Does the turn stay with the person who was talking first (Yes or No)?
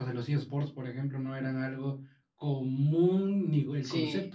No